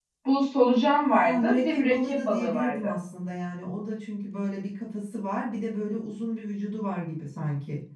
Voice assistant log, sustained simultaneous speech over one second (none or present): present